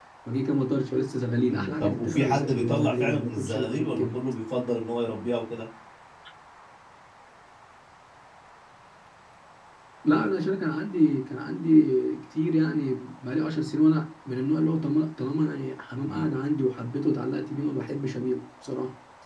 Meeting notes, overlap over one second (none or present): present